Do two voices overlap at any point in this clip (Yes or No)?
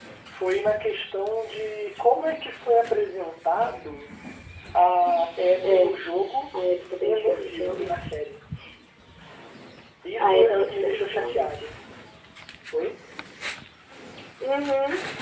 Yes